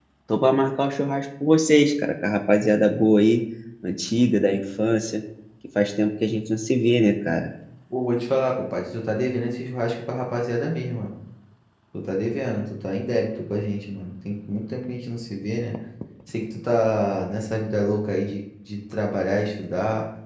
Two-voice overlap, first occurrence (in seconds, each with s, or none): none